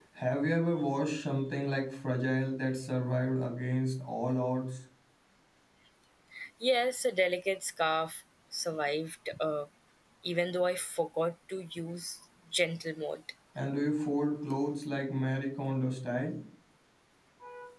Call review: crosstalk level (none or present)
none